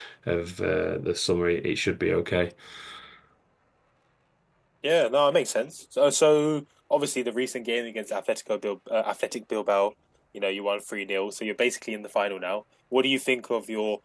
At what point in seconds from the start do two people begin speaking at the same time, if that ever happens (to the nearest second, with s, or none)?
none